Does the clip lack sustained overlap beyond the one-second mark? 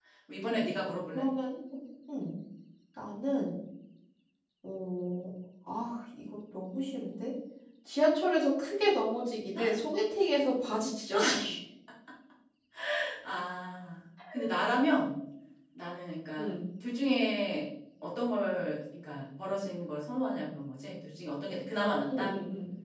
Yes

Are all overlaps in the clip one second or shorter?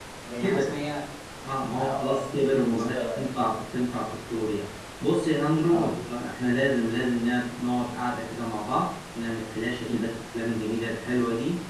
No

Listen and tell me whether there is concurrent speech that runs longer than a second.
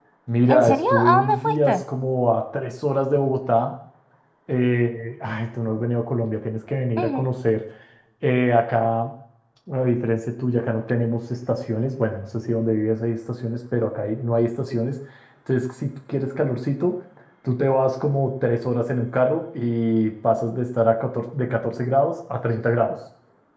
Yes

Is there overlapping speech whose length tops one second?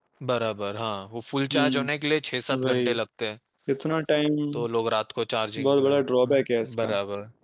Yes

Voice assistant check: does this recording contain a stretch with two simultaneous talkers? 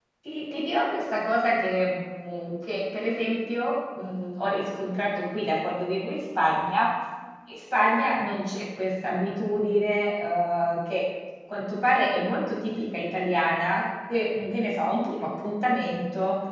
No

